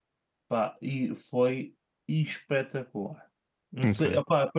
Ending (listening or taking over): listening